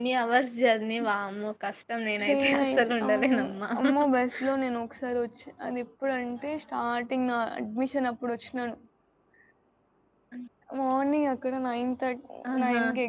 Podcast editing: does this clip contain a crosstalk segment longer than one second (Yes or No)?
Yes